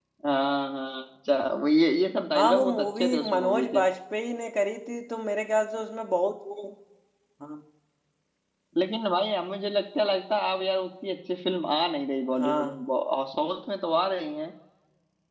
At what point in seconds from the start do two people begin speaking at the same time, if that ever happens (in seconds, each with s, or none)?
2.4 s